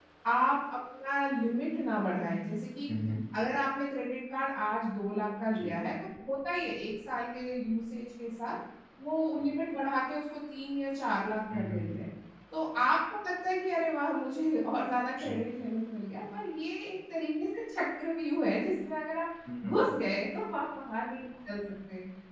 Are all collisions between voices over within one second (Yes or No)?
Yes